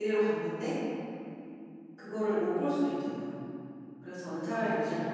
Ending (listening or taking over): listening